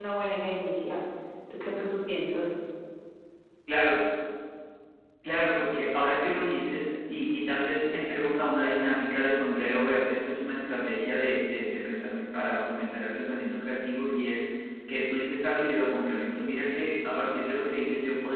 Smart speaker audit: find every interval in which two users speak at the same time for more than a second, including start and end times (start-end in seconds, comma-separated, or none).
none